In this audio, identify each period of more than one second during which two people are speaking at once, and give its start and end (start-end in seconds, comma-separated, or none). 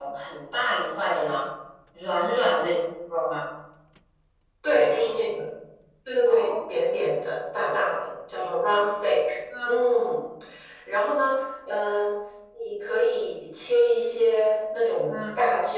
none